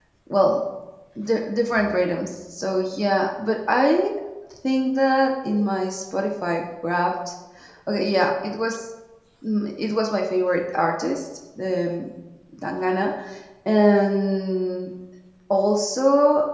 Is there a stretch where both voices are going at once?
No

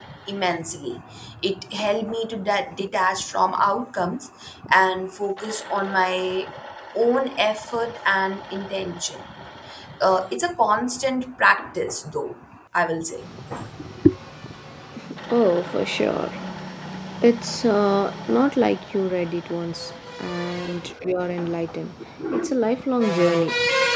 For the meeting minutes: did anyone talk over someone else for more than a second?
No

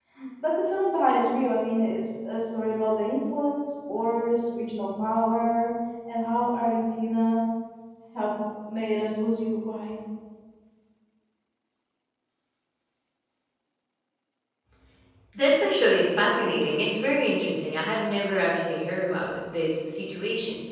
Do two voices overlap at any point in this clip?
No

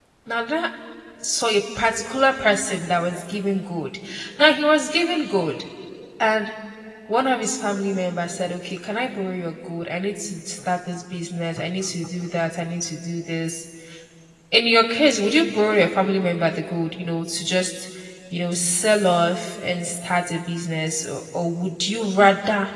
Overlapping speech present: No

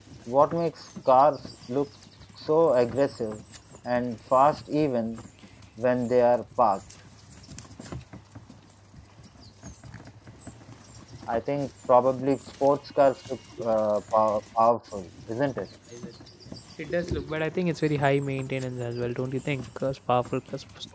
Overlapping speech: No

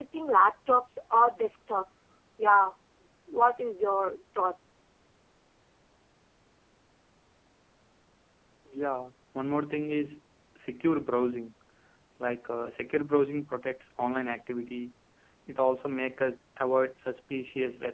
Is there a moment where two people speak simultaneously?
No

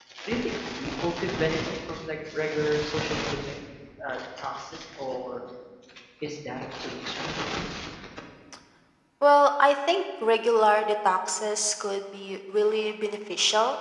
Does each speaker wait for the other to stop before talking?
Yes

